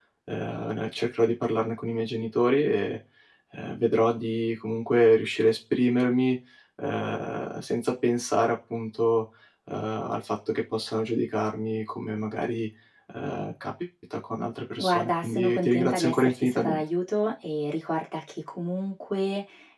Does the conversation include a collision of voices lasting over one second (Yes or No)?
Yes